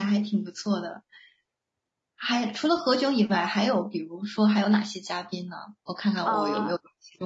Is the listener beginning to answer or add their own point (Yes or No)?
Yes